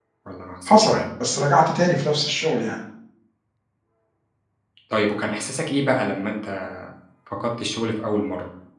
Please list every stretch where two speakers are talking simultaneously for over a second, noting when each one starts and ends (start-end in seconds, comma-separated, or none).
none